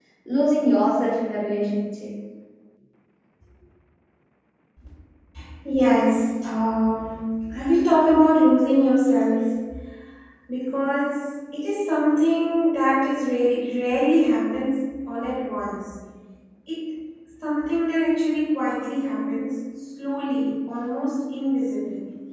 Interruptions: none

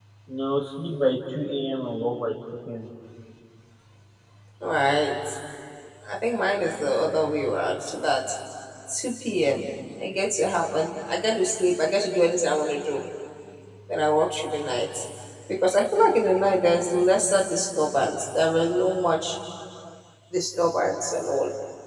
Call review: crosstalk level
none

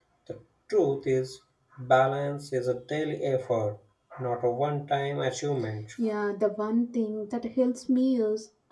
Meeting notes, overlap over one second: none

